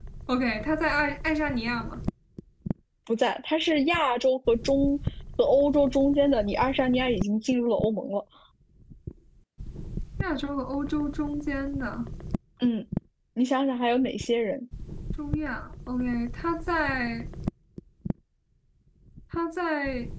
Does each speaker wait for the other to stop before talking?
Yes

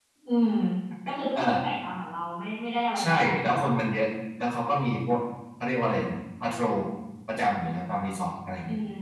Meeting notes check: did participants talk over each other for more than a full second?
No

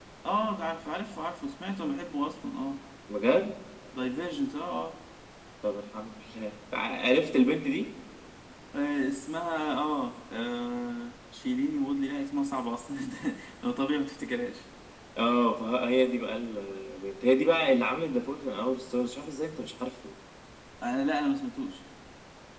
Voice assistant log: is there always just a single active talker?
Yes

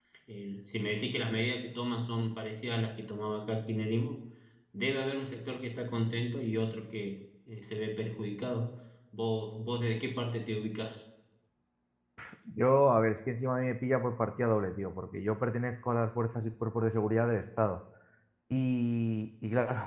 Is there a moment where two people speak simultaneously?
No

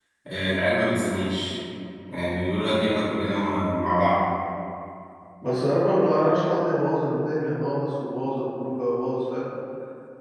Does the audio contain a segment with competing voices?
No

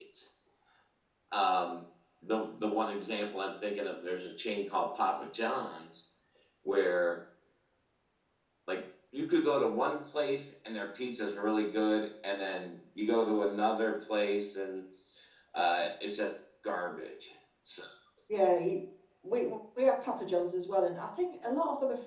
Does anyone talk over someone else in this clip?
No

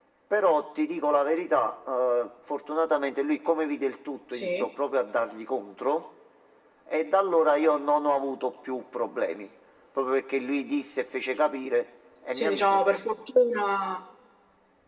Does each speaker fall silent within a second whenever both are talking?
Yes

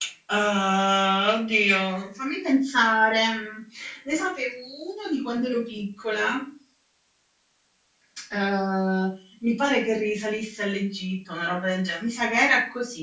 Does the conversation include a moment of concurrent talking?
No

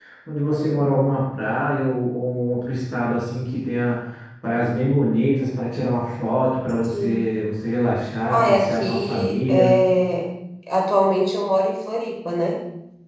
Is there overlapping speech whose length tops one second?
Yes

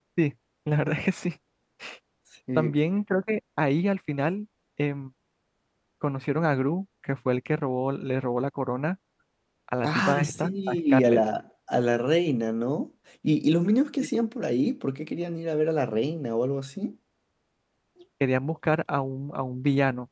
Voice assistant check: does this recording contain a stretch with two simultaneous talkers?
Yes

